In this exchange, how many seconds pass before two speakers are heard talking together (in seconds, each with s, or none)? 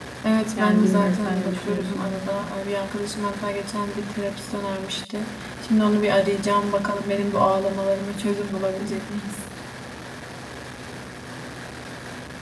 0.6 s